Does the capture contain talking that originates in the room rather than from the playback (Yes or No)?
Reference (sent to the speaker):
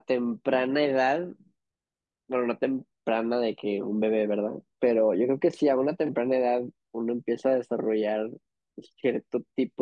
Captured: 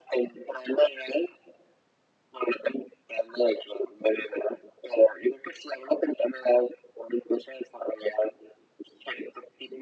No